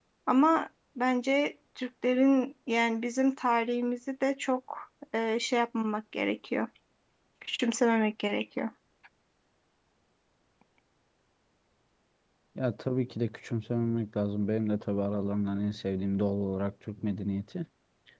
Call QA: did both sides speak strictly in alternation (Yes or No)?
Yes